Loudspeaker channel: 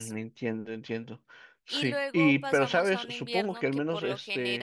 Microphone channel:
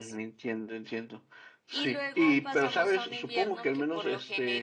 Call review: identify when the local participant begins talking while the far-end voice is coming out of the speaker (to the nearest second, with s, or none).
none